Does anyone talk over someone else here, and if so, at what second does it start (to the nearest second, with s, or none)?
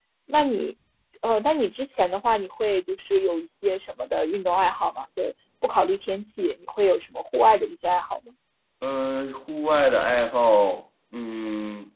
none